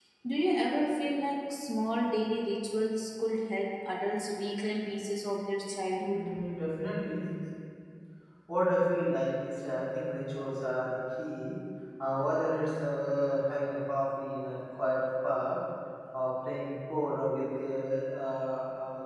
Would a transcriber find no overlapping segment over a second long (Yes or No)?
Yes